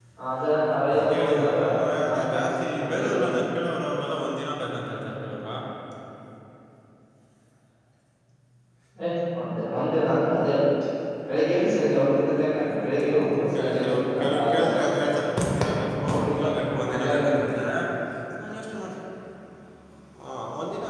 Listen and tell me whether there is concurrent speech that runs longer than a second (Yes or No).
Yes